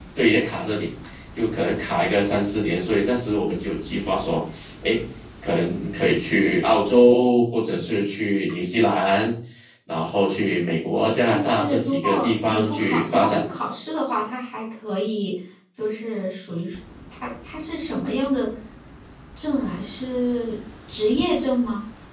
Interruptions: present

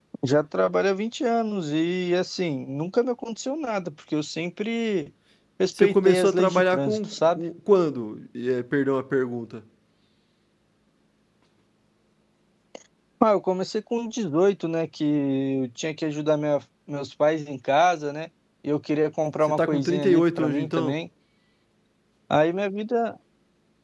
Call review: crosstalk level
present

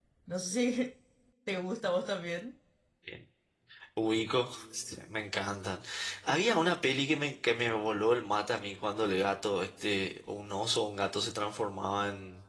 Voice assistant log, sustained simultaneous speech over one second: none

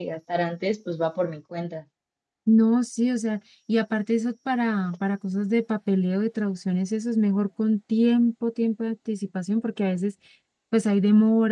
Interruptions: none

